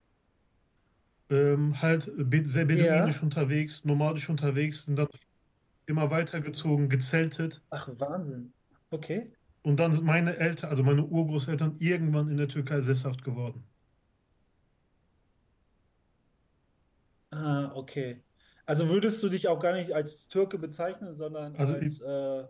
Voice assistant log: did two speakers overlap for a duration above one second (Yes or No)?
No